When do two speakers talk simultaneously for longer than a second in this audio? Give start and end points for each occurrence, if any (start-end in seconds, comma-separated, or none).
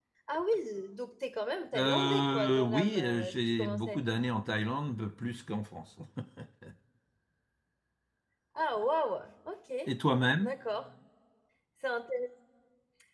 1.8-4.0